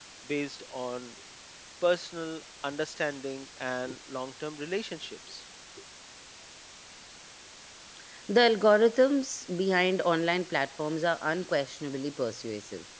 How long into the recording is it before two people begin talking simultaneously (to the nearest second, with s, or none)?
none